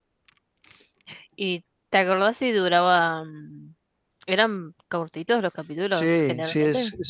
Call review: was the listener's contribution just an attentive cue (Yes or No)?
No